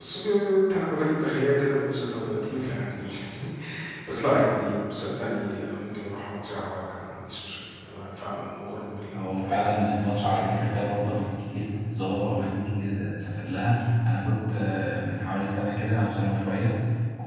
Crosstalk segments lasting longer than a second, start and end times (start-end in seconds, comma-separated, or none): 9.1-10.9